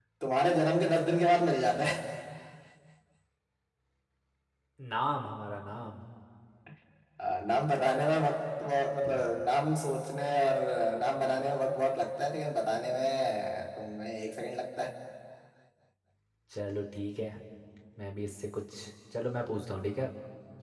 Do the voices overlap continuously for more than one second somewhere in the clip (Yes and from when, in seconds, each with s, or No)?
No